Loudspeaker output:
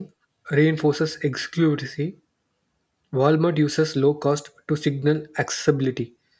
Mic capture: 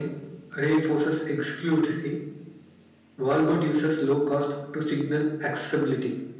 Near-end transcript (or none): none